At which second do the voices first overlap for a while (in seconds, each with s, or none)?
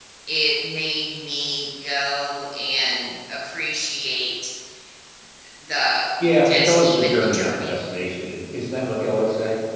6.4 s